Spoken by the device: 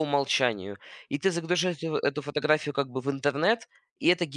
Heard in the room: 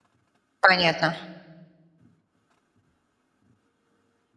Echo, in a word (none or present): none